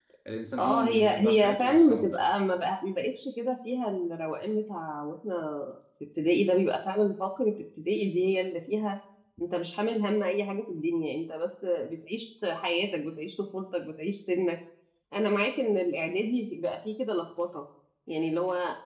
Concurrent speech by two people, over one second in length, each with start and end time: 0.6-2.3

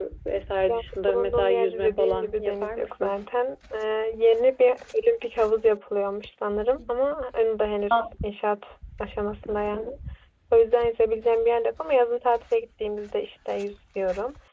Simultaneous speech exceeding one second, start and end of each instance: 0.7-3.2

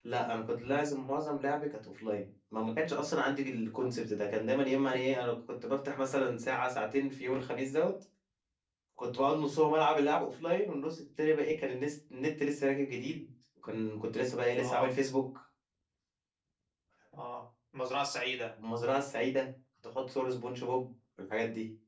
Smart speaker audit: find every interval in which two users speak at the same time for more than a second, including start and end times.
none

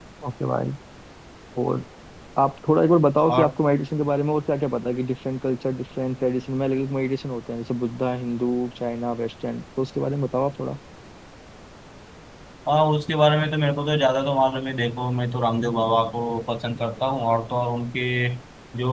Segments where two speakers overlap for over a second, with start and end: none

